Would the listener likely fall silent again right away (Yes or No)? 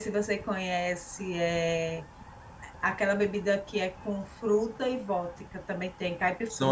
No